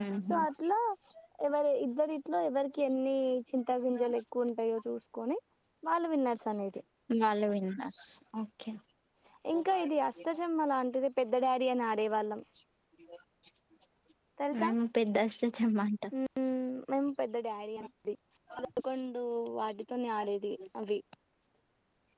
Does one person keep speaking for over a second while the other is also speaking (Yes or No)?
No